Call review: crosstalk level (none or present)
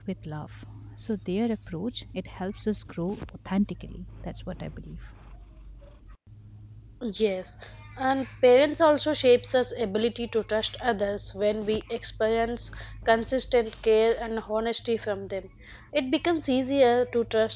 none